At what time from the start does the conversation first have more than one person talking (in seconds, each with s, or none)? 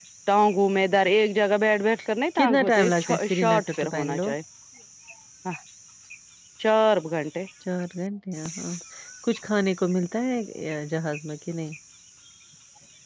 2.4 s